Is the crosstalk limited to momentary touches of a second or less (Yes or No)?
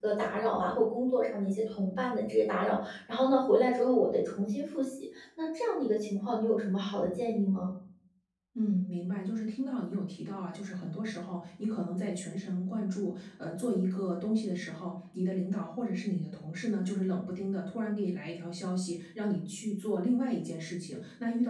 Yes